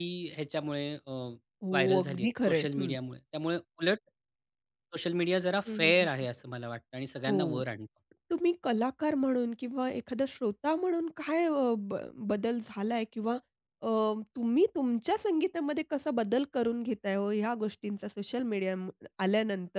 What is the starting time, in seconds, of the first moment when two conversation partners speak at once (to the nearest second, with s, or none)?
2 s